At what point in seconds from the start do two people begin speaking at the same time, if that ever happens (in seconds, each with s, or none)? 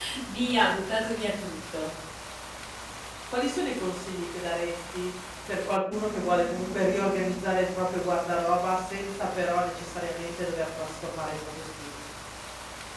none